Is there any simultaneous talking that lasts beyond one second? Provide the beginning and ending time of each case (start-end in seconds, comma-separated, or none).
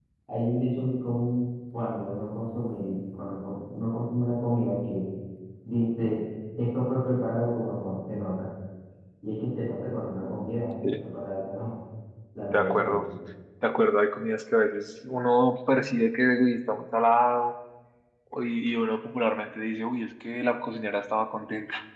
none